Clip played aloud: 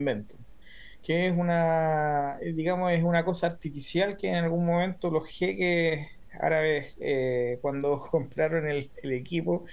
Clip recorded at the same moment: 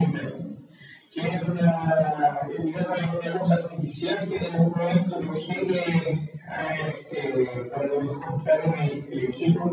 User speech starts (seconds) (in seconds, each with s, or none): none